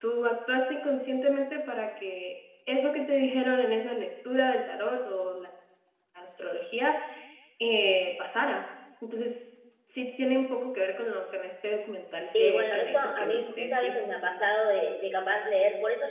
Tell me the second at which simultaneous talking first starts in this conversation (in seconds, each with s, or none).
12.3 s